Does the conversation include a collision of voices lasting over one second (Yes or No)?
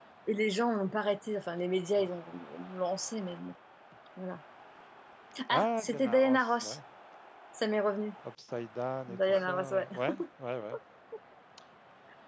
Yes